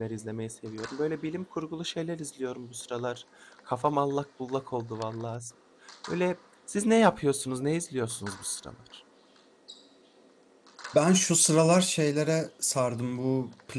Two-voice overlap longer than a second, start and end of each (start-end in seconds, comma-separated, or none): none